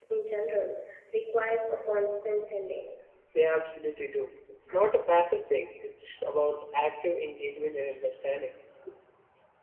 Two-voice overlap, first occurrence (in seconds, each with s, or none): none